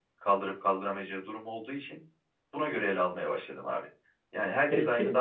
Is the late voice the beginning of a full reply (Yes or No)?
No